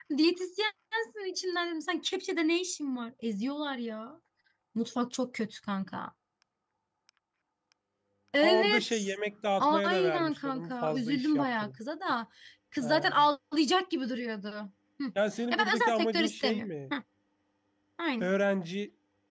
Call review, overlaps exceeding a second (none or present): present